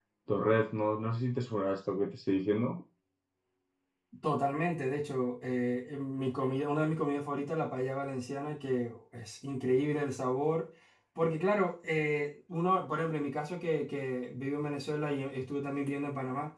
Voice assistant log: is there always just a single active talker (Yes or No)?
Yes